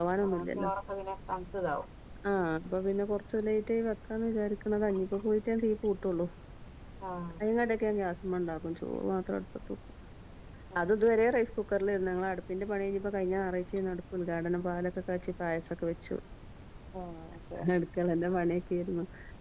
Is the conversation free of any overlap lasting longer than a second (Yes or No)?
Yes